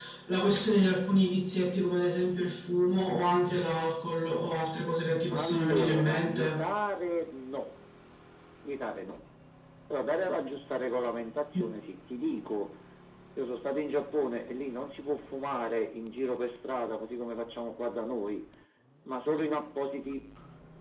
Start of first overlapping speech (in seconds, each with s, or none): 5.3 s